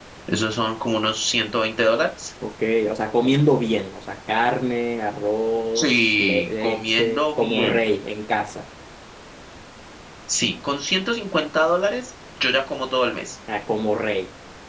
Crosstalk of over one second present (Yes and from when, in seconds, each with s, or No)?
Yes, from 5.8 s